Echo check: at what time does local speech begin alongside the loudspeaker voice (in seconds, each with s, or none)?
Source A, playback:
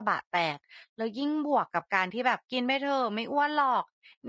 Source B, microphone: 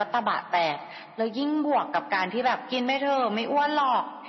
none